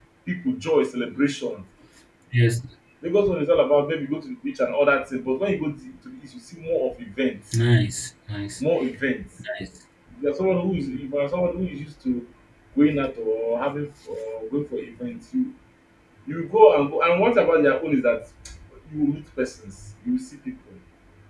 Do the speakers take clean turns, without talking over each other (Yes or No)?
Yes